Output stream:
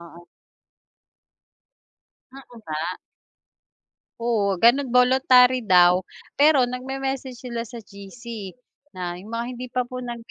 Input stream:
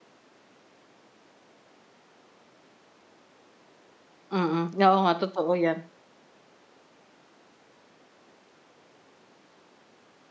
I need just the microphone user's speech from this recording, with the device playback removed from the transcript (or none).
Mm, oo nga totoo yan.